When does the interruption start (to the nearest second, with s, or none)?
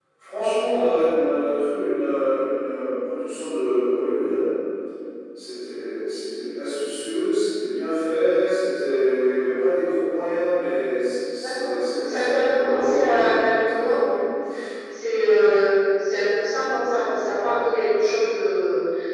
11 s